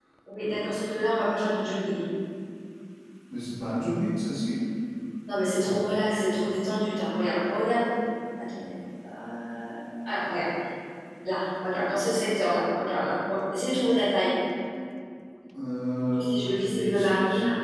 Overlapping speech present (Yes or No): Yes